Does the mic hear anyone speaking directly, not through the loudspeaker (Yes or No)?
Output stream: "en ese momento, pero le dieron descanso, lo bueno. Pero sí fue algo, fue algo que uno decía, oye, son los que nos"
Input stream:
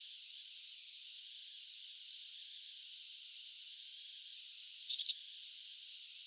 No